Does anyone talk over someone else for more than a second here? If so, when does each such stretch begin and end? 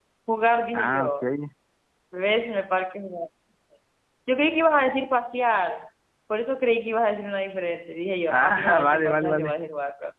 8.3-9.5

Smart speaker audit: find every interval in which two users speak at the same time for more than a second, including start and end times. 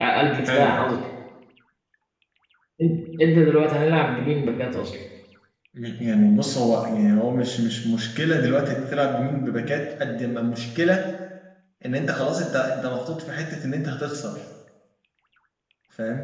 none

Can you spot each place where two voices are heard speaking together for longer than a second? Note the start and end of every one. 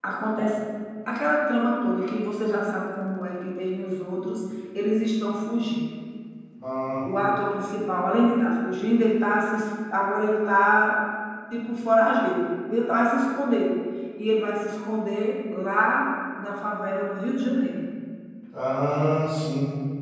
none

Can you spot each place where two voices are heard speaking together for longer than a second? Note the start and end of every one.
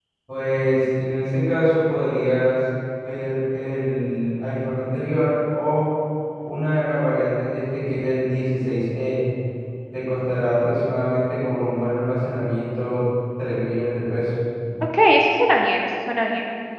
none

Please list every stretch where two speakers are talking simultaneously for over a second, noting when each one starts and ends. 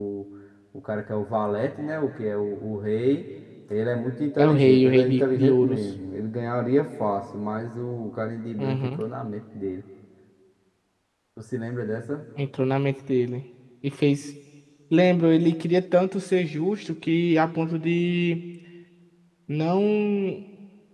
4.4-5.9

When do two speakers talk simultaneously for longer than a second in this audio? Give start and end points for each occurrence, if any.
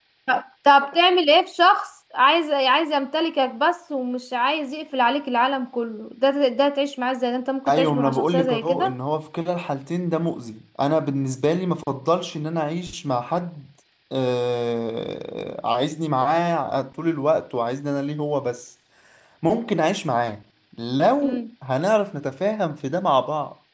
7.7-8.9

